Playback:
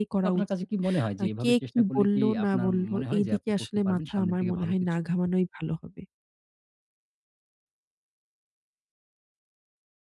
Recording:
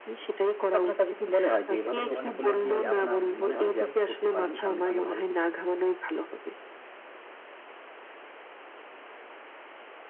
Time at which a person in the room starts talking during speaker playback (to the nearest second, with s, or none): 2 s